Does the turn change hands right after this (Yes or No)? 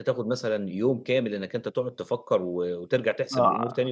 Yes